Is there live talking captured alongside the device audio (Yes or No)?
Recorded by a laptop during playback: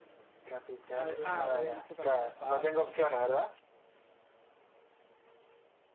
Yes